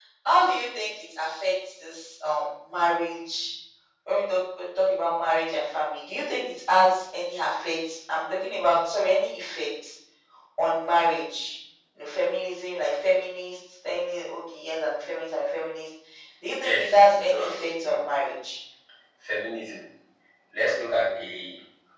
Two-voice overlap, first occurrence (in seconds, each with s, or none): 16.6 s